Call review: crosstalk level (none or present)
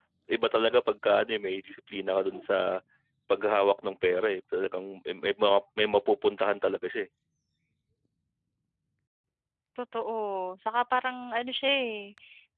none